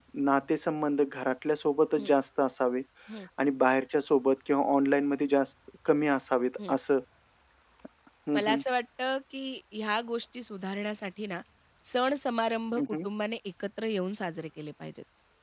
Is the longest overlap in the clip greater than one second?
No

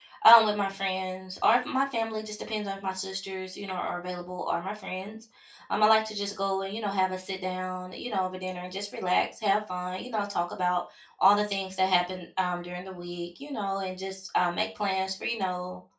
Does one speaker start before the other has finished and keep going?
No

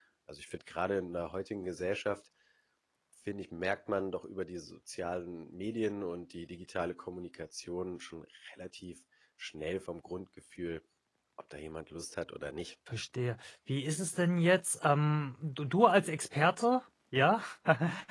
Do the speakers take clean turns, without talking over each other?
Yes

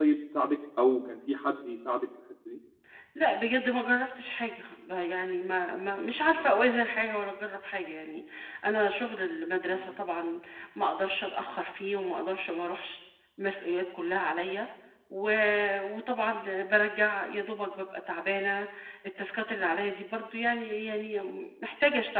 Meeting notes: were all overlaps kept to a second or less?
Yes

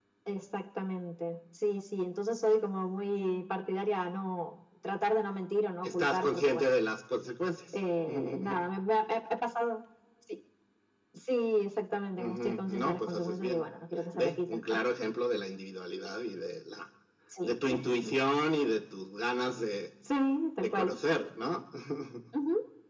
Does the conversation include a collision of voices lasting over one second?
Yes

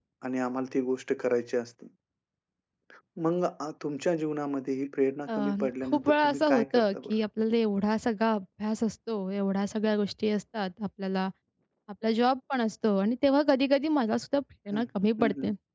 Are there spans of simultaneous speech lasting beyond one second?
Yes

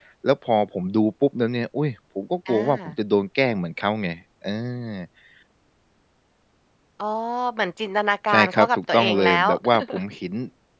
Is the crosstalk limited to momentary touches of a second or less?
No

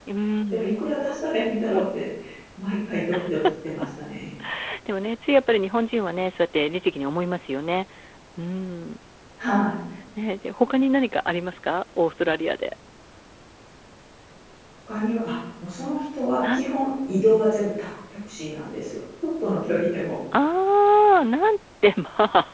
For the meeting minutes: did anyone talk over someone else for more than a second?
No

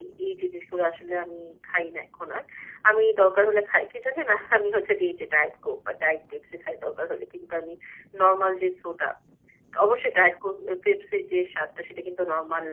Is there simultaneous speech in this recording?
No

